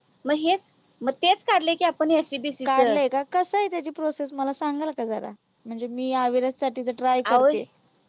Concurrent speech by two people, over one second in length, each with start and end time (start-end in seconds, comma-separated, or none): none